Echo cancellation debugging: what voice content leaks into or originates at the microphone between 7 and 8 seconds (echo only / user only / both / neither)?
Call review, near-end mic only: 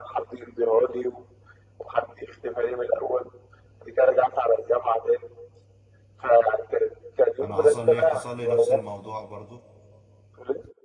both